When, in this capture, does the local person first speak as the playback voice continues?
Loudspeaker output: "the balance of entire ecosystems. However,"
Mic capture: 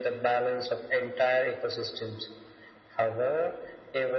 none

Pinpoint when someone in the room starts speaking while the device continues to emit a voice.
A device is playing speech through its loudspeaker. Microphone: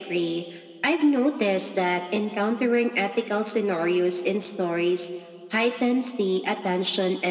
none

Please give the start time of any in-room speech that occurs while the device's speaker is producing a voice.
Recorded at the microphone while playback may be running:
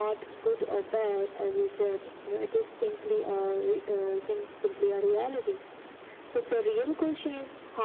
none

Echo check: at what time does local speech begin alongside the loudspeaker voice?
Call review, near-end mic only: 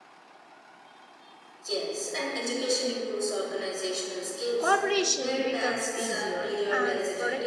4.6 s

